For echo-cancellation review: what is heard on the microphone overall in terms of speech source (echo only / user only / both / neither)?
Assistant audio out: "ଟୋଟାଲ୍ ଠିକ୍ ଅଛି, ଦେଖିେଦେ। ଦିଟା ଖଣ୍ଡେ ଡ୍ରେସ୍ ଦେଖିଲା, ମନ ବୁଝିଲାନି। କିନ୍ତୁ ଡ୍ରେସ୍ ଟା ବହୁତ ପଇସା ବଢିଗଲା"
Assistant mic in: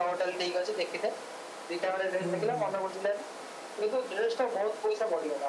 both